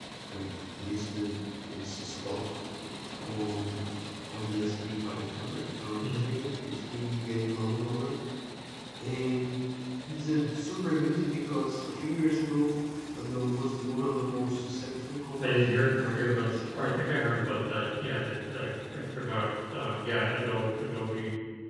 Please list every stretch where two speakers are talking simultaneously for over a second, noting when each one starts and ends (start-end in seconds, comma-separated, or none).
15.4-16.6